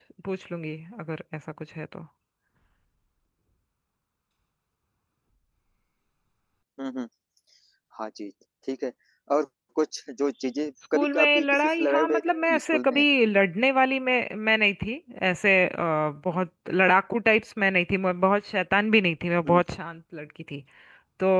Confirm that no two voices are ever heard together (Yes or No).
No